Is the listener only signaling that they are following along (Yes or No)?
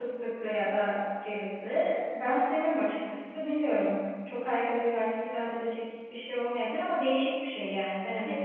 No